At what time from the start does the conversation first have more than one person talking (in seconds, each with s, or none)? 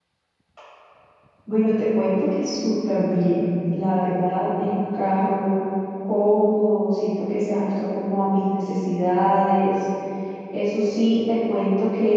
none